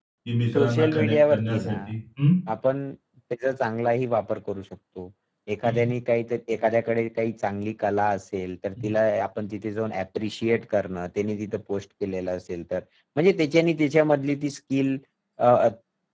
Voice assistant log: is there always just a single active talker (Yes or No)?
No